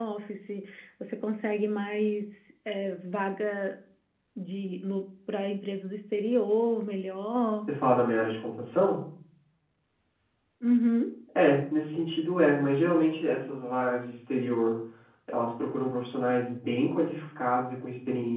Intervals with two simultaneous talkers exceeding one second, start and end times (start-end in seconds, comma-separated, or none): none